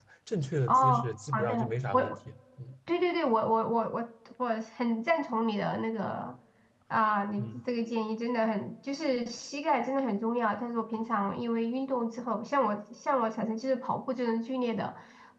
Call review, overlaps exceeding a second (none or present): present